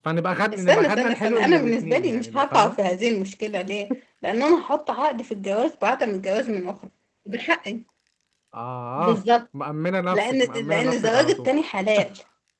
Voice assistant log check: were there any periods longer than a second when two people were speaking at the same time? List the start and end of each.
0.5-2.8, 10.1-11.5

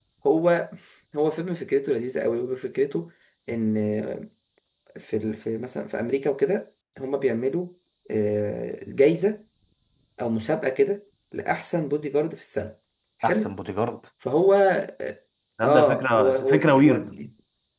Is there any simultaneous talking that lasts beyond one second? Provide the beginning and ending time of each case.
15.6-17.1

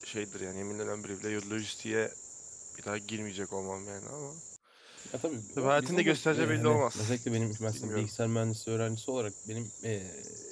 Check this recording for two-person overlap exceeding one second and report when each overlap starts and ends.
5.6-7.1

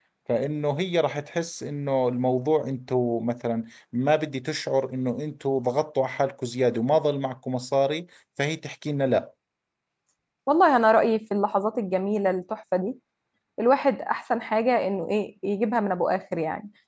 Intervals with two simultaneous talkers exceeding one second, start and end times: none

